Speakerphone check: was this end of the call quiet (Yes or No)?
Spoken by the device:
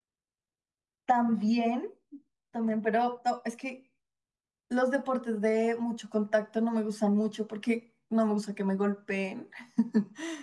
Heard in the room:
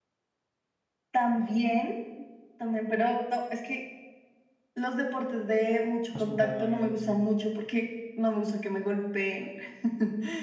No